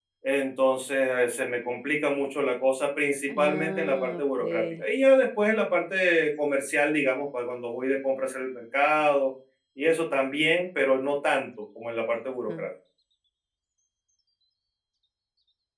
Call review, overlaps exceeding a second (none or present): present